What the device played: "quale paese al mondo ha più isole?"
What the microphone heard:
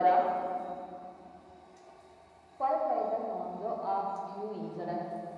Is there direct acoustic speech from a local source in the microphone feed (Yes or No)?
No